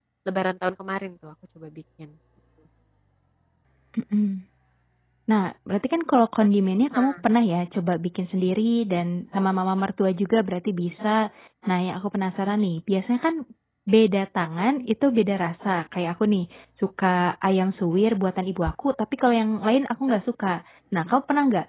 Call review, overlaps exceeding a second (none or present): none